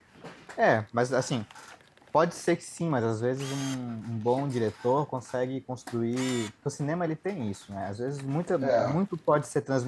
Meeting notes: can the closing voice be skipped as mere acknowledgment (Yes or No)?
Yes